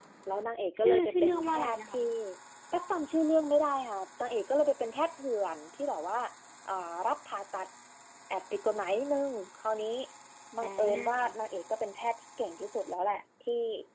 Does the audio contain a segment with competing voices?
Yes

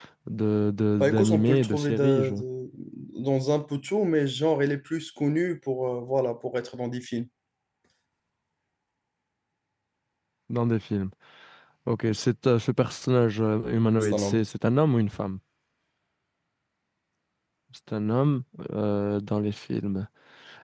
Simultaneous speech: Yes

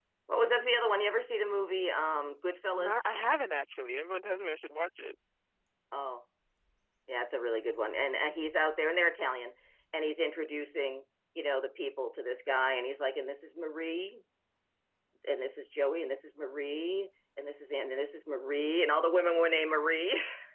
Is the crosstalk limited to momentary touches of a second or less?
Yes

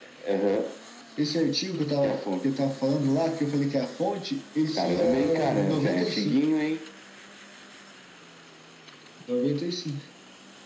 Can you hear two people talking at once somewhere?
Yes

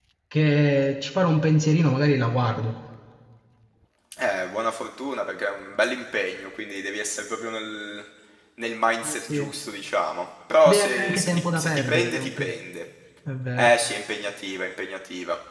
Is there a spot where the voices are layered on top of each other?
Yes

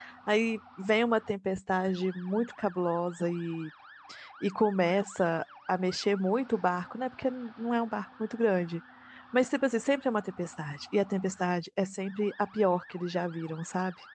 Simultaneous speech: No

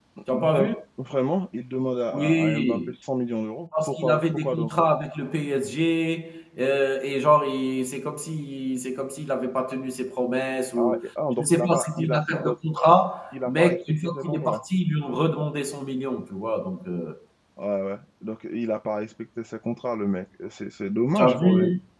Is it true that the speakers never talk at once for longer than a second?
No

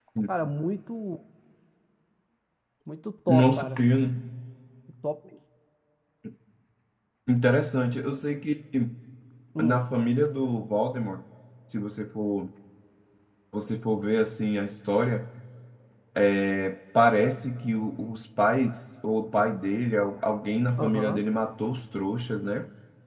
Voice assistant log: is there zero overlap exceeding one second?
Yes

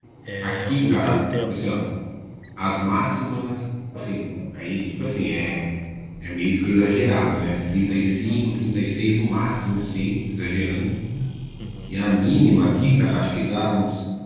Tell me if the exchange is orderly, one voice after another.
No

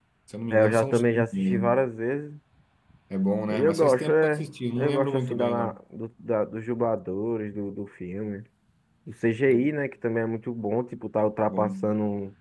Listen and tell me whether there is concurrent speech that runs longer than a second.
Yes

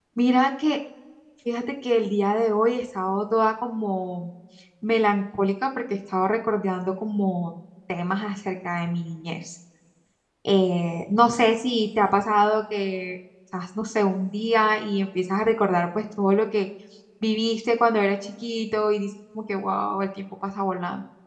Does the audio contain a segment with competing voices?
No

